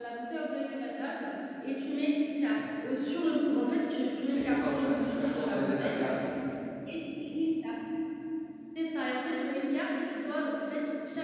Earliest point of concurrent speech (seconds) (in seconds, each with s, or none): 4.3 s